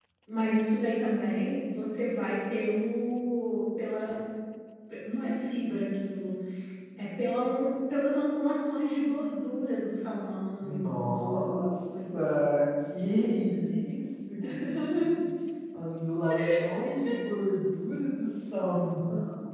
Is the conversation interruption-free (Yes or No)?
No